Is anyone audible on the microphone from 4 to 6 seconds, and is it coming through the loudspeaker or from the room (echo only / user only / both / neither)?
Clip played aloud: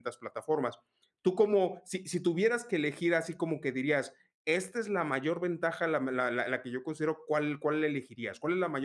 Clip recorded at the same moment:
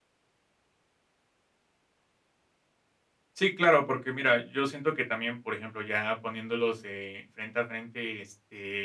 user only